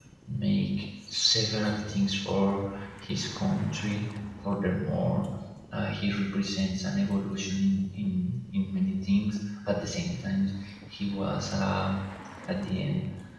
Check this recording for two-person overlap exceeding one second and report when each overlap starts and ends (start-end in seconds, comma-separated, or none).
none